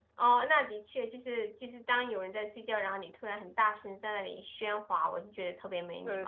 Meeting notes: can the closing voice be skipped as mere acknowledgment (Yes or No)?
No